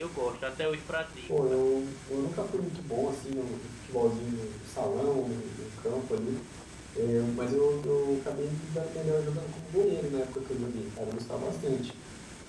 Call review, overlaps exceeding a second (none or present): none